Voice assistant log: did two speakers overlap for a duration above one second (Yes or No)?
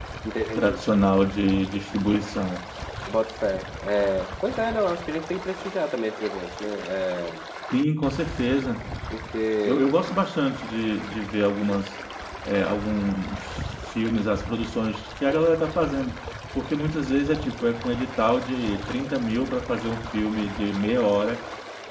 No